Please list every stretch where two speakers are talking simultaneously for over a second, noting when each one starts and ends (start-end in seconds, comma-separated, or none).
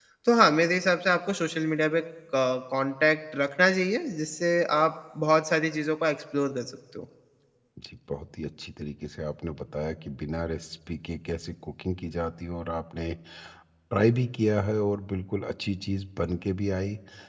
none